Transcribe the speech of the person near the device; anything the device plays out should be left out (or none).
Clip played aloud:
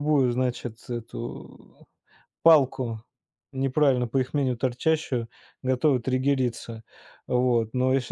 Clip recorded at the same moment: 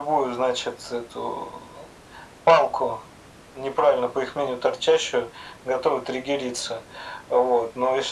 none